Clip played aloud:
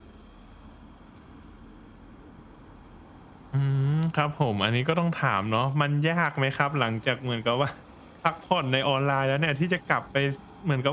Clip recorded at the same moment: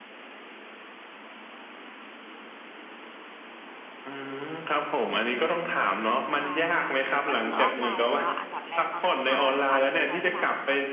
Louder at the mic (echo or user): echo